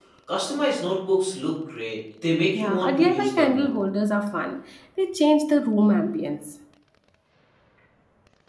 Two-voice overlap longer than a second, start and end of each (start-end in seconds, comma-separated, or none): 2.5-3.8